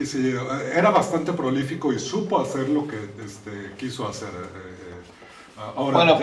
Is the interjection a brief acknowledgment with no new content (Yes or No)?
No